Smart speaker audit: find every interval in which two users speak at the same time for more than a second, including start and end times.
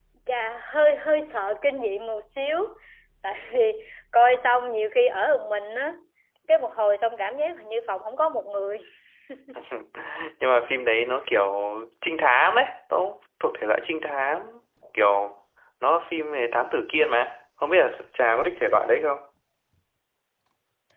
none

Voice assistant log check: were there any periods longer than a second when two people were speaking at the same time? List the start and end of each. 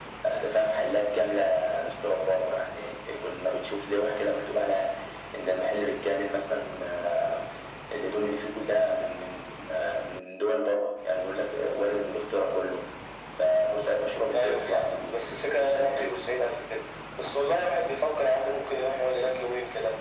14.3-16.2

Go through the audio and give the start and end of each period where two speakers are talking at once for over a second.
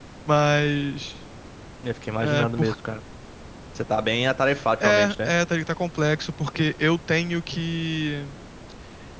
none

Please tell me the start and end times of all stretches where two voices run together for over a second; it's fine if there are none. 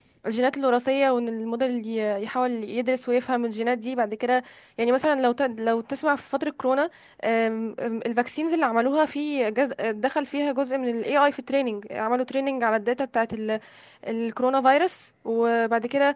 none

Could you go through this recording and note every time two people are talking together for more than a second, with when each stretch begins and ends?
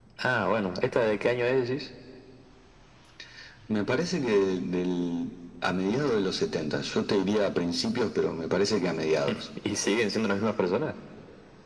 none

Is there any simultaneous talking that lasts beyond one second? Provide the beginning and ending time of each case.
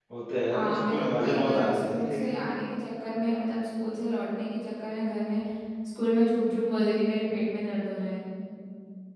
0.5-2.3

